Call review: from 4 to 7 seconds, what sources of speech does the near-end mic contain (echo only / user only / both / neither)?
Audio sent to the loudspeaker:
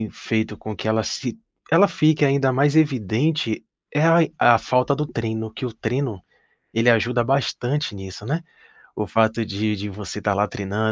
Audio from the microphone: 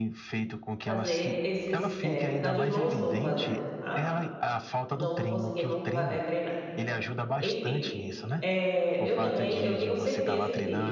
both